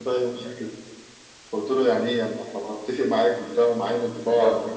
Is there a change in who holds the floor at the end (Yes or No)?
Yes